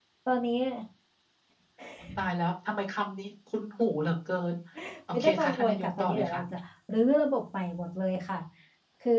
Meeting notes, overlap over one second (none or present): present